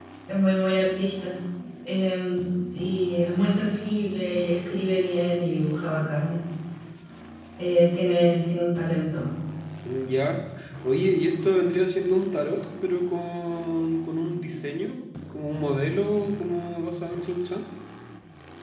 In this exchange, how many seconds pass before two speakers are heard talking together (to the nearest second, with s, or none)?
none